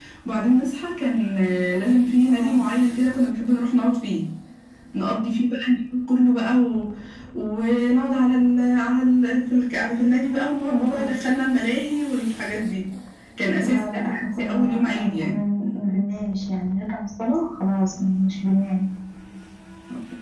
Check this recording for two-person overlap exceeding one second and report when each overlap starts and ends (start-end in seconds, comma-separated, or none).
13.6-15.4